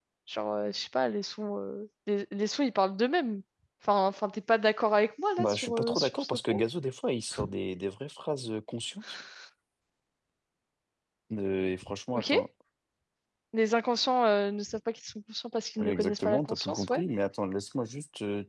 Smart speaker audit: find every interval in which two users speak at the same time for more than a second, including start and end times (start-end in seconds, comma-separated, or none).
5.4-6.6, 15.8-17.0